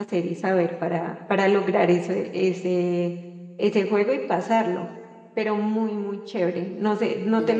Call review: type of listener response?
taking over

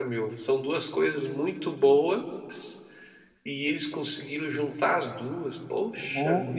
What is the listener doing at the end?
taking over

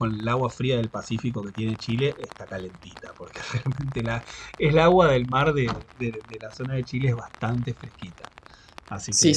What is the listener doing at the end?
taking over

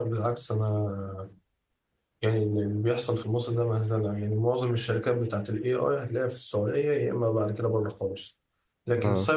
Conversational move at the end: listening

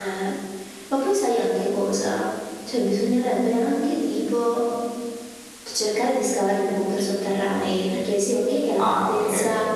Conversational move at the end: listening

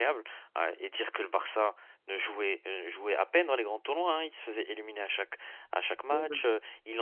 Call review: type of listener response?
listening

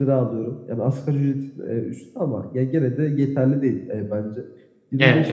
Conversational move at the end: listening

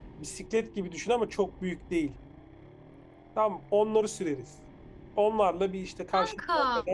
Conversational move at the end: listening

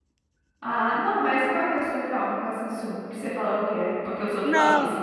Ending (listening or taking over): taking over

